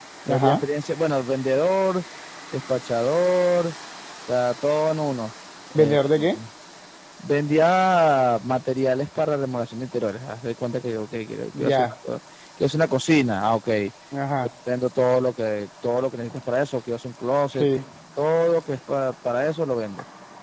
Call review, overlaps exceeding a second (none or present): none